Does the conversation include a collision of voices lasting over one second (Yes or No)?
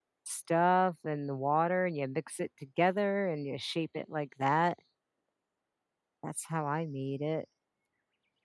No